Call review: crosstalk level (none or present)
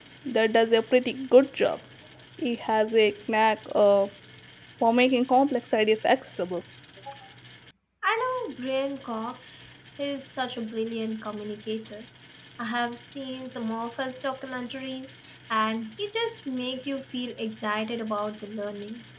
none